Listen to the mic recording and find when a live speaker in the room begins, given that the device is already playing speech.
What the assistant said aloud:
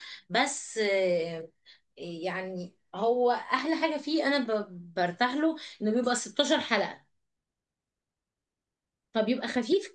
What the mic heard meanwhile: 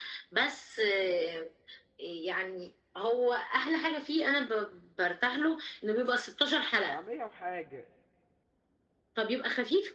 7 s

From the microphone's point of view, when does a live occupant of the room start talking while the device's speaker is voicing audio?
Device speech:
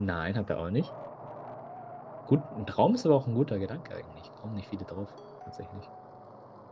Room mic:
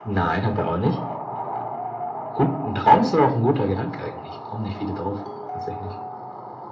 none

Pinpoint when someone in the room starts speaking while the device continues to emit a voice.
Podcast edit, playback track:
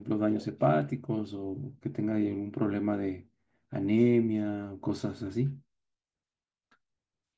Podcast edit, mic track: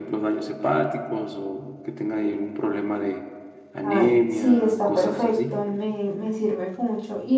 4 s

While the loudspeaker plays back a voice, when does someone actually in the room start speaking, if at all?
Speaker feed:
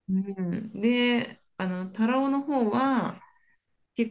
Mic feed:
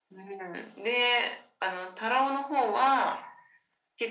none

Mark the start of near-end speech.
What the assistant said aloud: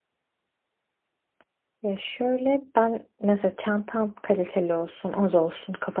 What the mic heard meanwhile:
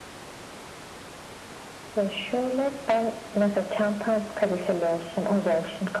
none

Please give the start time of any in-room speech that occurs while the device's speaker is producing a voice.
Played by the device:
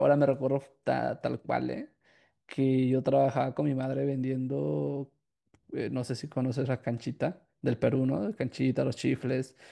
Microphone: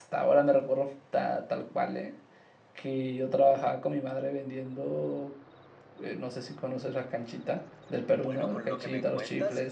8 s

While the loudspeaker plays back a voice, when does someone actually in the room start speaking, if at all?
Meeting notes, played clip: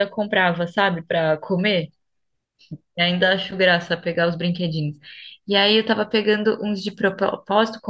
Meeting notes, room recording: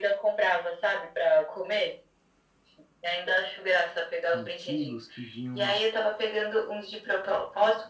4 s

